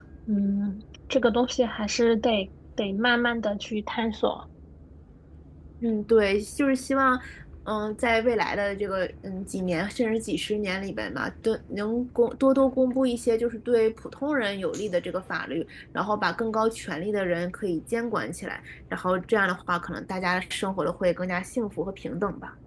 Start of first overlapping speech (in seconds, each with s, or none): none